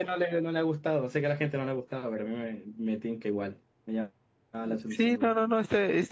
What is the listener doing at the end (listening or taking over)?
taking over